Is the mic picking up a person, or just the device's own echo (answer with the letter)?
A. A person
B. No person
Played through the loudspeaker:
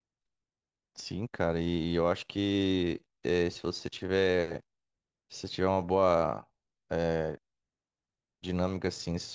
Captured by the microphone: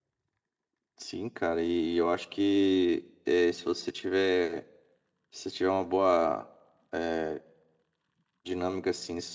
B